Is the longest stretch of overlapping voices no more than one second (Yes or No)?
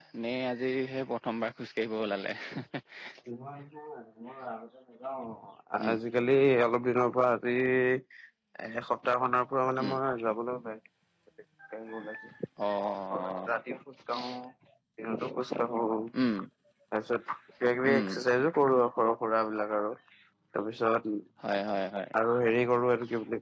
Yes